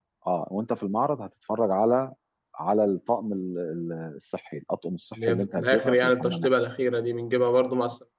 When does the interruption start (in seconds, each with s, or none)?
5.2 s